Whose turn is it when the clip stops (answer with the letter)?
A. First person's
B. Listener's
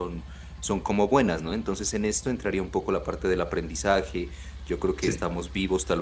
A